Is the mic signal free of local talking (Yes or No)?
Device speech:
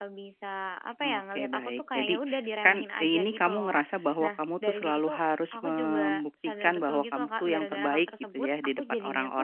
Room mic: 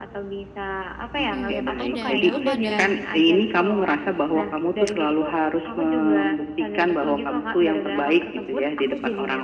No